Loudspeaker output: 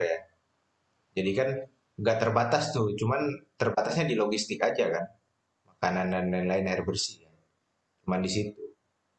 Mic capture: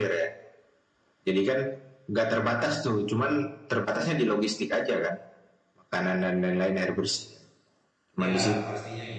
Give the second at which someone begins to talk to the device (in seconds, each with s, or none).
8.2 s